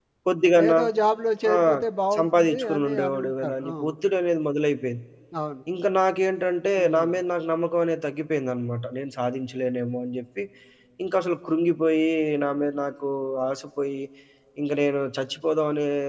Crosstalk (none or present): present